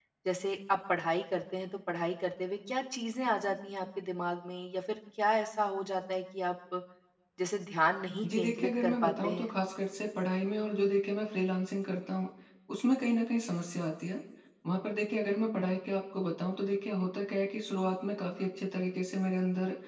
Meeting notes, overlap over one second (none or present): present